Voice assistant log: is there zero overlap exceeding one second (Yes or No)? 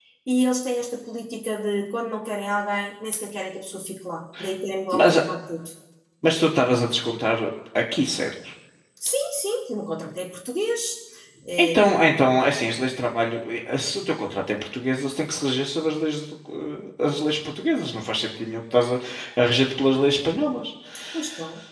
Yes